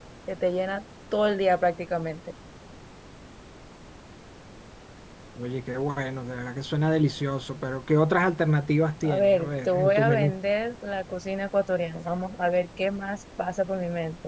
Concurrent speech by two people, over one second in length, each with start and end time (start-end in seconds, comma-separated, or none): 9.0-10.3